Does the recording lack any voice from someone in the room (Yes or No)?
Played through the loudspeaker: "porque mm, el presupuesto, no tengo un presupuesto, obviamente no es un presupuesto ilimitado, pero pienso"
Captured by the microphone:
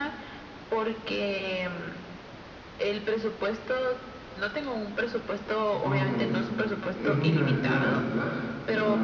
No